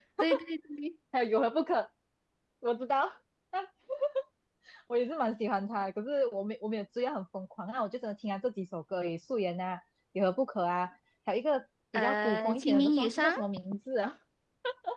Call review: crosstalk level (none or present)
present